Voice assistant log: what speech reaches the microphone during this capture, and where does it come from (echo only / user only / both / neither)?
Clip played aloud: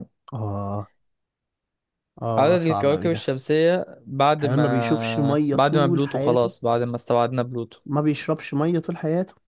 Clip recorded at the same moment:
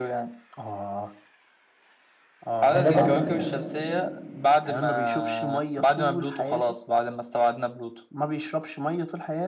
both